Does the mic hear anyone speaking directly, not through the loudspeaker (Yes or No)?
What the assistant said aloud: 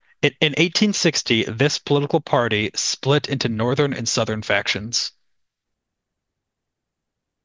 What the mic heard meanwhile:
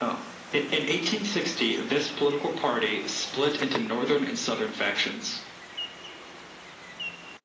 No